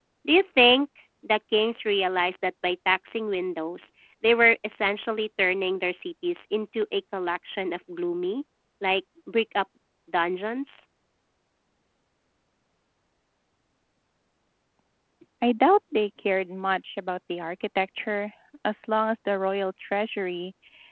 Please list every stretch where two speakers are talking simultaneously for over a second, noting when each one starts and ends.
none

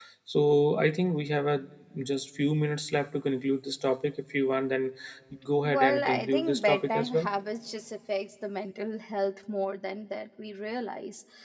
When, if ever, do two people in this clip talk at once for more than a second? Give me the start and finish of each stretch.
5.6-7.3

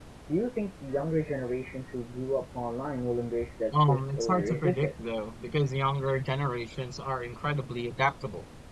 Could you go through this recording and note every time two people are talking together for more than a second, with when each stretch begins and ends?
3.7-5.1

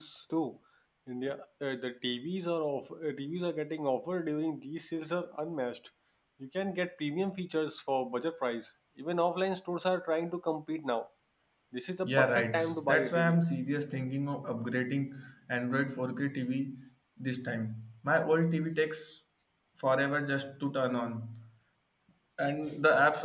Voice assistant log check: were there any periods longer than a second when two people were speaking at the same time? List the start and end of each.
12.0-13.4

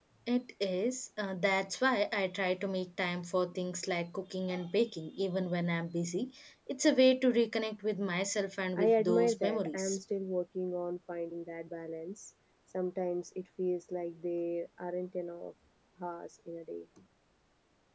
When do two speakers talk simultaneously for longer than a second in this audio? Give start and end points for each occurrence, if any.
8.8-10.0

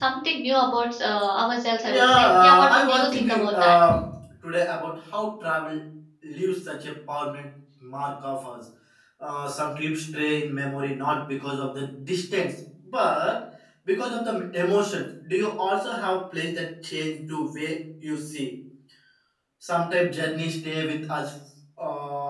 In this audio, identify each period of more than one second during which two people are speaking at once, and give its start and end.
1.8-3.7

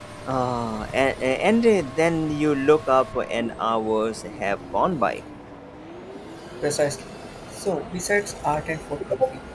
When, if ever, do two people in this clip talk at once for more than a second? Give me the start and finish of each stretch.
none

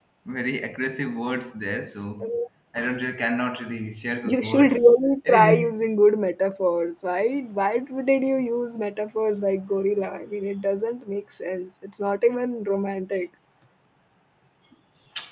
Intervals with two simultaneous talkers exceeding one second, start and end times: none

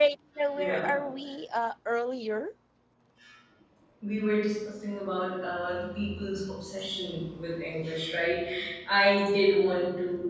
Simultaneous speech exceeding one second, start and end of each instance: none

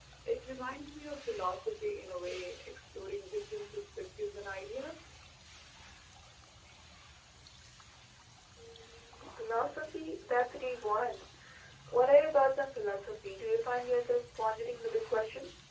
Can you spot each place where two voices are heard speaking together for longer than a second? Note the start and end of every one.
none

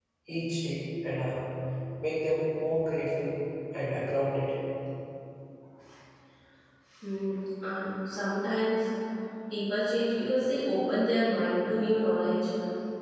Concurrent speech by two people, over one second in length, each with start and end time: none

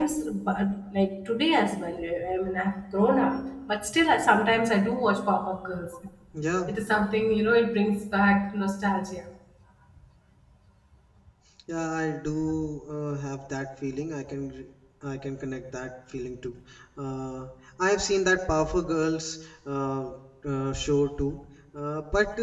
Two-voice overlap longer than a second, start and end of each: none

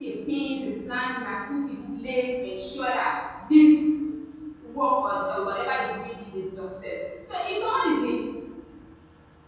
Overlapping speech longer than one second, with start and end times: none

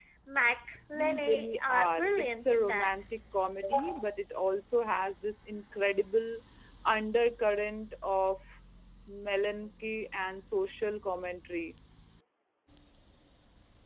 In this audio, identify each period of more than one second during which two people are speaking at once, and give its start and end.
0.9-2.9

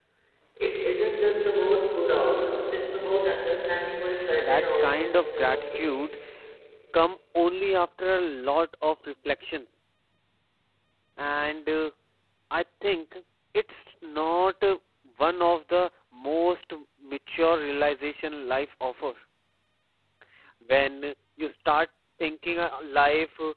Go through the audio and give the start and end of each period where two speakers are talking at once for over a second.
4.4-5.9

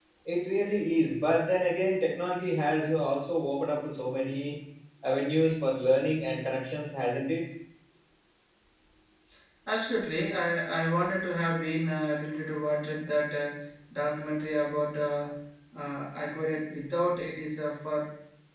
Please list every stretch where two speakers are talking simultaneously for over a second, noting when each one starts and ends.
none

